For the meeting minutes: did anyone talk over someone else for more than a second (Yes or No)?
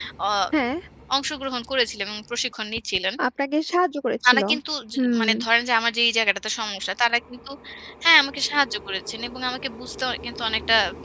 No